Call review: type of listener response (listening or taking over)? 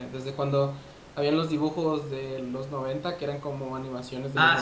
taking over